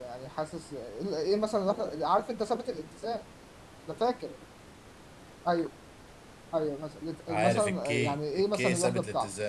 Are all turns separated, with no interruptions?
No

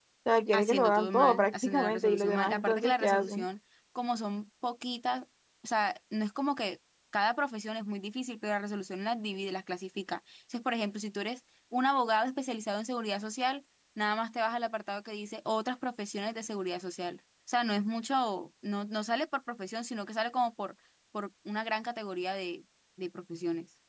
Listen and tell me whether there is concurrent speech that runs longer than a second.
Yes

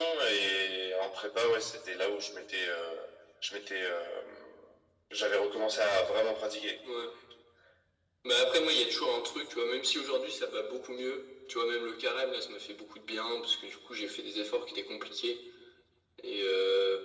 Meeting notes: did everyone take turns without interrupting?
Yes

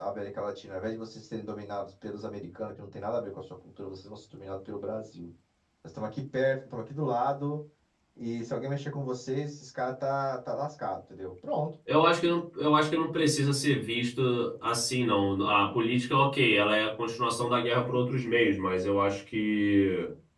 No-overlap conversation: Yes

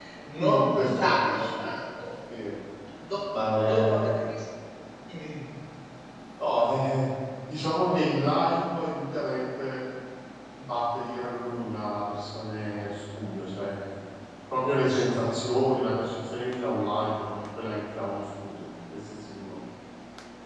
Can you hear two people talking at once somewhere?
Yes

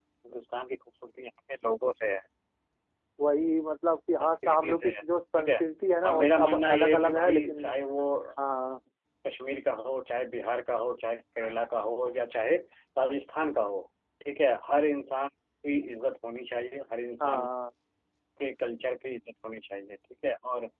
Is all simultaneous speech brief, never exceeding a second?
No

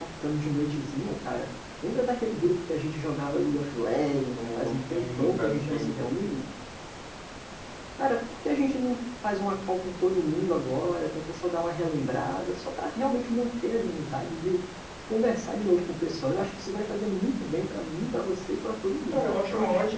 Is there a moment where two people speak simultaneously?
Yes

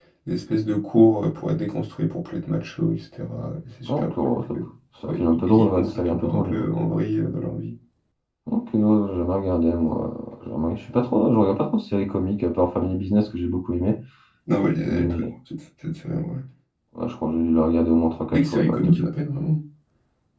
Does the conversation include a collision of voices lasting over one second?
Yes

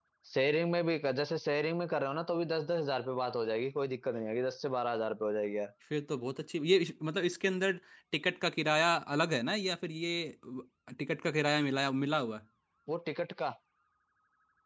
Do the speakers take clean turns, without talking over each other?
Yes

